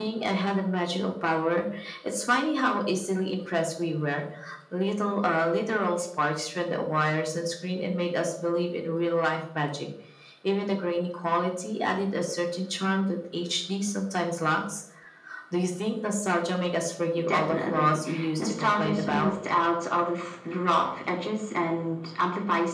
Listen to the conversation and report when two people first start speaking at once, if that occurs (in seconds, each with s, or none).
17.3 s